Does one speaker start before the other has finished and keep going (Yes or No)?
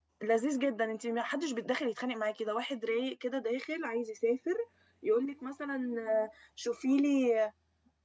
No